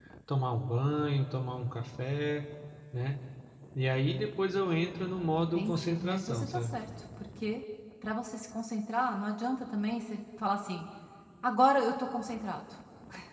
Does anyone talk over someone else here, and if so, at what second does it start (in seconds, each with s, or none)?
5.3 s